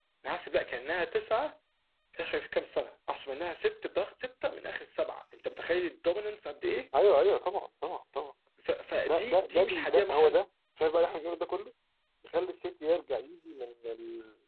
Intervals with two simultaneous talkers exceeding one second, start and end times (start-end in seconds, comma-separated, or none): 9.0-10.5